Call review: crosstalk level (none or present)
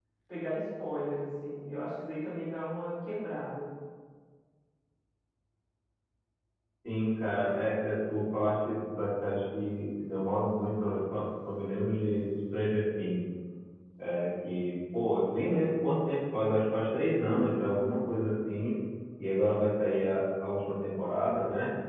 none